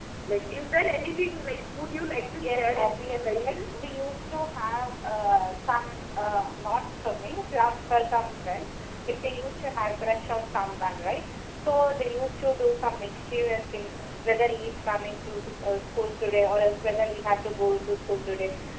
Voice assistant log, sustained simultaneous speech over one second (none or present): present